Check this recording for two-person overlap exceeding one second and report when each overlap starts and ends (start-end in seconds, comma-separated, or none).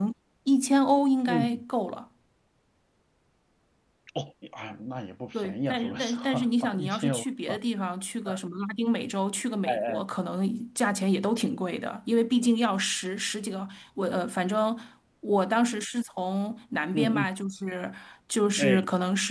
5.3-7.2